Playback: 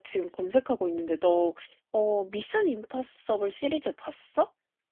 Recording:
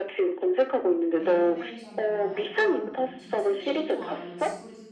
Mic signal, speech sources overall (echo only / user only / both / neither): both